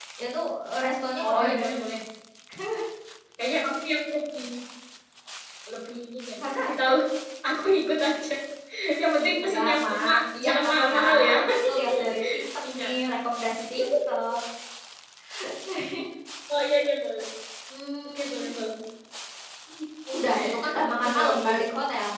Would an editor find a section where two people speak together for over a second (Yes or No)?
Yes